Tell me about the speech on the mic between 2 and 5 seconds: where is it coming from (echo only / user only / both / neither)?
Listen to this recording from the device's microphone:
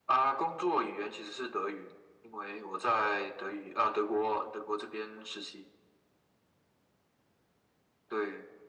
echo only